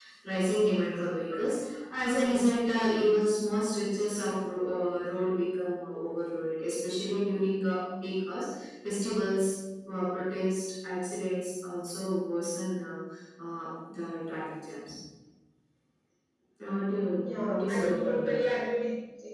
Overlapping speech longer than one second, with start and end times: 17.2-18.5

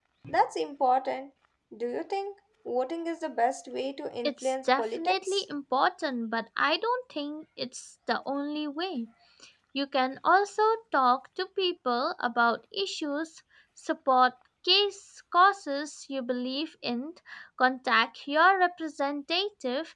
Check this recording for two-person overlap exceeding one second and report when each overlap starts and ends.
4.2-5.4

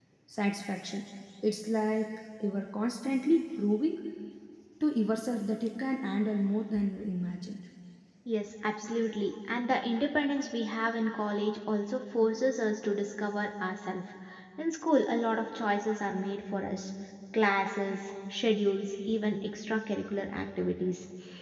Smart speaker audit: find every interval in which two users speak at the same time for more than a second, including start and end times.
none

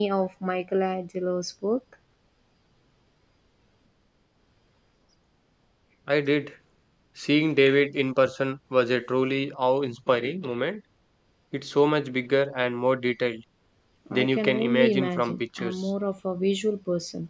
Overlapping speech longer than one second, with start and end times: 14.1-15.7

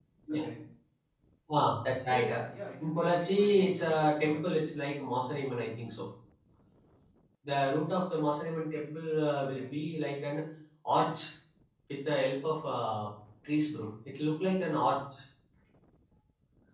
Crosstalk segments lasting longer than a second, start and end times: 2.8-4.4

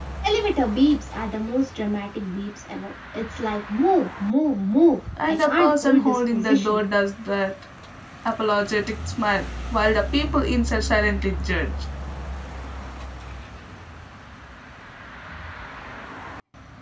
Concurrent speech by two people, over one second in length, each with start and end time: 5.2-6.8

